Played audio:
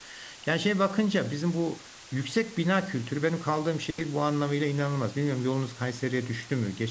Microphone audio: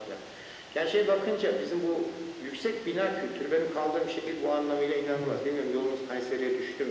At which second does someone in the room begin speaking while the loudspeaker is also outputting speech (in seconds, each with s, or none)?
5.1 s